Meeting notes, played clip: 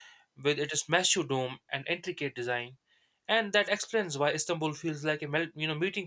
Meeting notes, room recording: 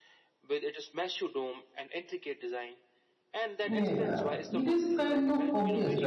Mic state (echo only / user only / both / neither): both